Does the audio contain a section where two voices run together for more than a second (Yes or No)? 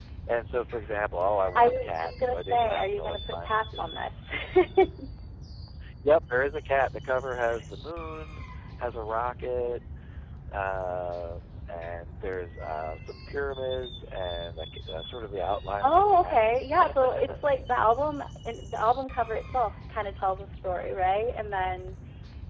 Yes